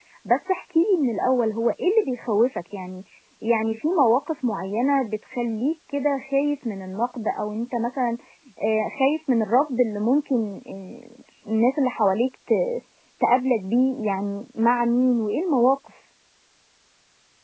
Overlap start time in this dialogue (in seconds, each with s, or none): none